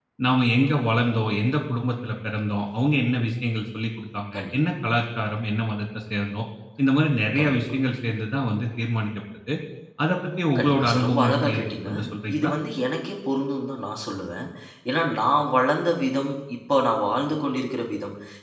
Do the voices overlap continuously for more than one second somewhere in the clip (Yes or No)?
Yes